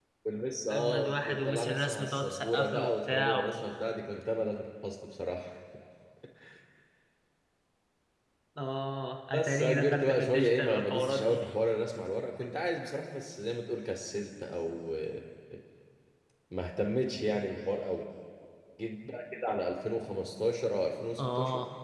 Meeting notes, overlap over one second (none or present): present